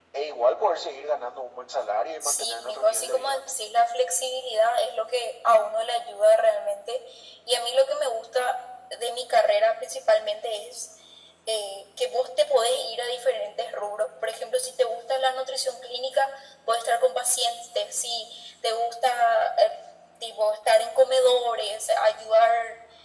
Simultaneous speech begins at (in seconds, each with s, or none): 2.2 s